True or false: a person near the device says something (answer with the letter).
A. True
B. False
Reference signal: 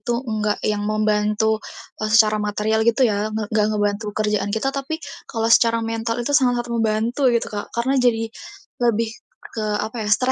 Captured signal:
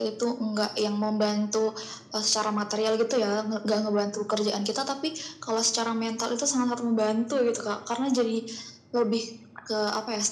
B